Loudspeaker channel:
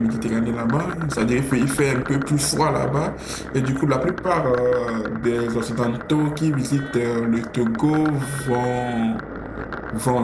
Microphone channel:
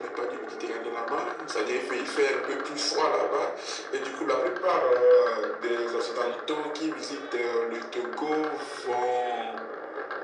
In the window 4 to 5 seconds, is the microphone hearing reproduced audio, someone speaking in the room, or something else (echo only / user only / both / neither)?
echo only